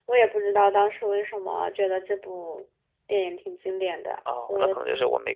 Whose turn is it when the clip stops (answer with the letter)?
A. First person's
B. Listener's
B